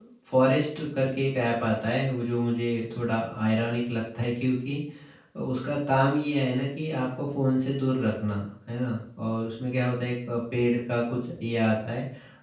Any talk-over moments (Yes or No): No